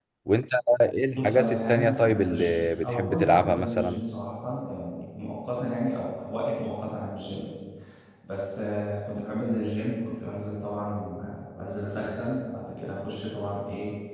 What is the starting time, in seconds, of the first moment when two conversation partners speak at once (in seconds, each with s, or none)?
1.1 s